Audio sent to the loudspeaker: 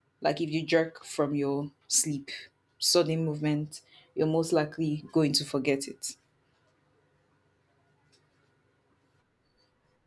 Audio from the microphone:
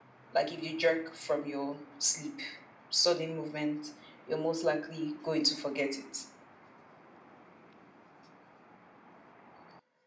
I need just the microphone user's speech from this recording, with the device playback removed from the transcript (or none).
none